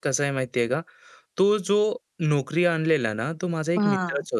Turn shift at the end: No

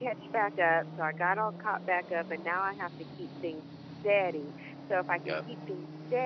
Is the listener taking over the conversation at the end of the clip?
No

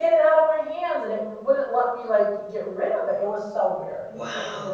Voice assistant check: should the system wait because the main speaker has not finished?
No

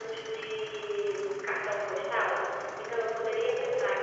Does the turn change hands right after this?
No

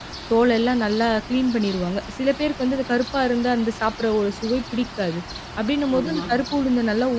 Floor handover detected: No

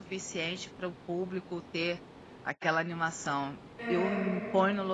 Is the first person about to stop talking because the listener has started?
No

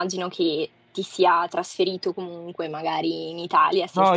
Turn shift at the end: Yes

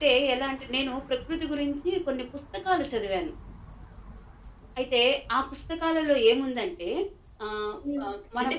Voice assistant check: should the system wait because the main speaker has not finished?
No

